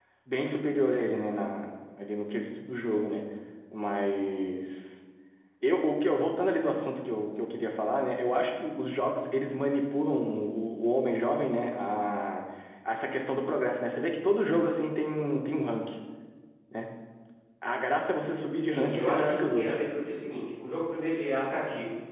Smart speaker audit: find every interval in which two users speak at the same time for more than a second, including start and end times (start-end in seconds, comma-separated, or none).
18.5-19.8